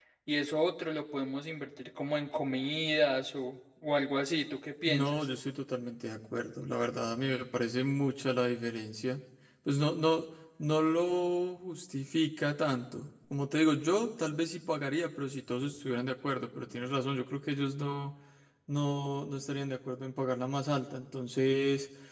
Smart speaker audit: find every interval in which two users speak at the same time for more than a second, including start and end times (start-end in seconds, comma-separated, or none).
none